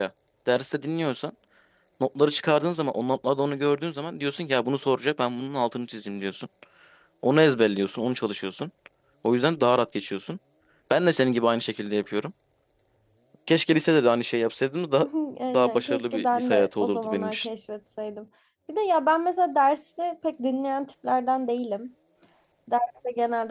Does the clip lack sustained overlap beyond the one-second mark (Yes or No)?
No